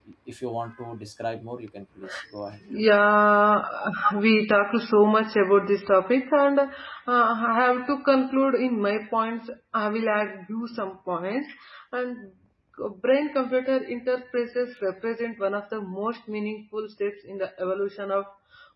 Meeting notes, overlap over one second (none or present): none